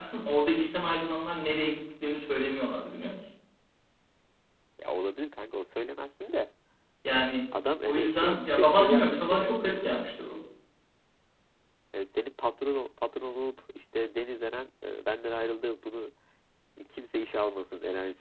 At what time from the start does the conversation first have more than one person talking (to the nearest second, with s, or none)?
8 s